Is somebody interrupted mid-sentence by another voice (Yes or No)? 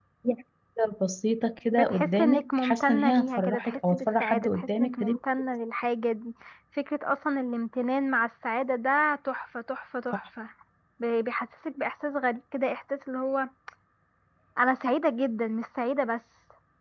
Yes